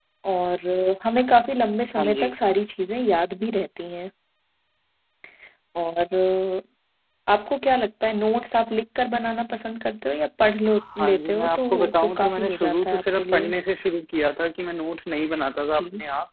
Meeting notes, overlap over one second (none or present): present